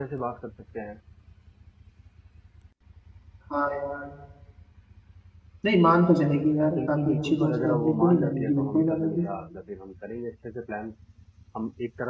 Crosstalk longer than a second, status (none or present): present